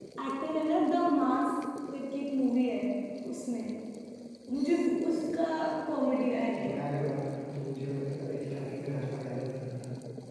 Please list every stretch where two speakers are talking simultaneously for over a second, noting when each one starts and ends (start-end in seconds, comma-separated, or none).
none